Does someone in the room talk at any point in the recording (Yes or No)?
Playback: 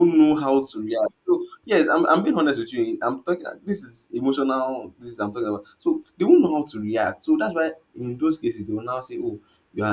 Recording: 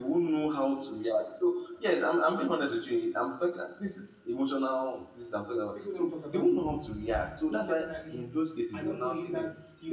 Yes